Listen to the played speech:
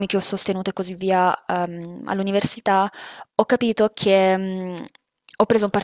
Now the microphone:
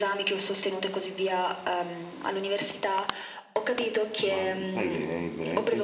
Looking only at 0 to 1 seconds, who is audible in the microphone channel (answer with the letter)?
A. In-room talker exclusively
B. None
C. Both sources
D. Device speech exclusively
D